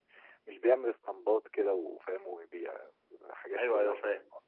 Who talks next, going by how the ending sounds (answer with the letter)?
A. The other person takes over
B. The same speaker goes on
A